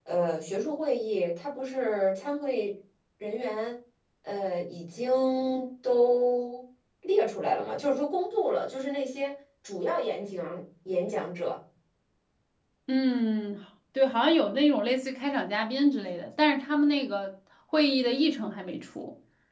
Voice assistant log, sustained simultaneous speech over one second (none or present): none